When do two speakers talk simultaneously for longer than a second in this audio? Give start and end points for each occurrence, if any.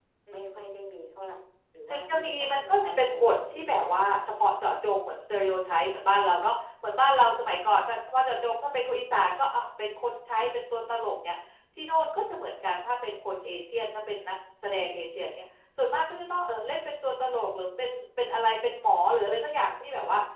1.9-4.0

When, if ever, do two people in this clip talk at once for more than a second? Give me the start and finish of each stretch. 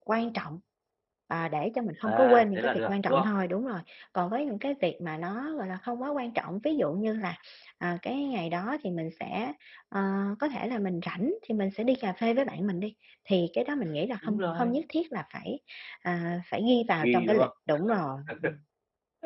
2.0-3.3

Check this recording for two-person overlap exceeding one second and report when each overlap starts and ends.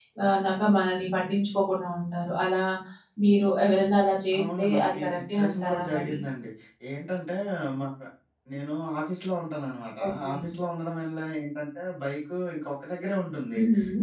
4.4-6.2

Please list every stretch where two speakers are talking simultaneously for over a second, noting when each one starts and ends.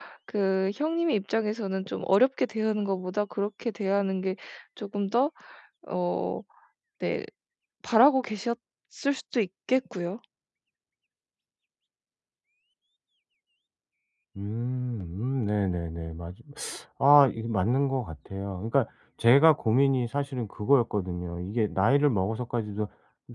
none

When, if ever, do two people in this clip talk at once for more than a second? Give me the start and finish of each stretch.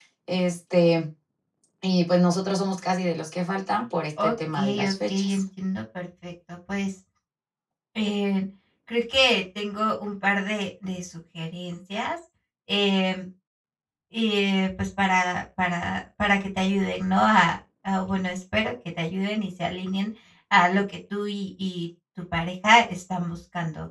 4.2-5.4

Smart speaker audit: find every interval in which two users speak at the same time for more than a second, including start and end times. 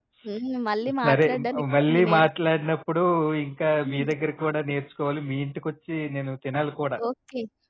1.1-2.3

